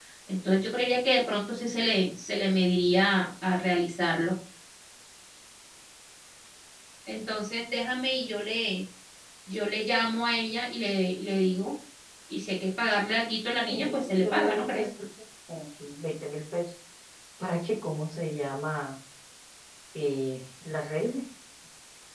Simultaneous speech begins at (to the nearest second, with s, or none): 14 s